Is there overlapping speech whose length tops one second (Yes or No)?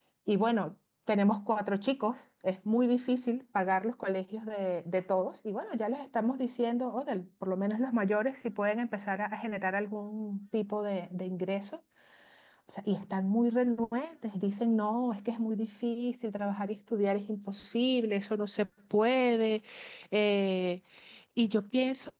No